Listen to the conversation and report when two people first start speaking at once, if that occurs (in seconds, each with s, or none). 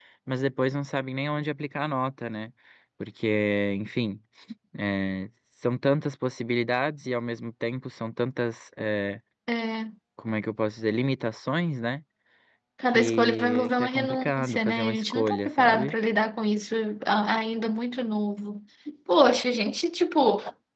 12.9 s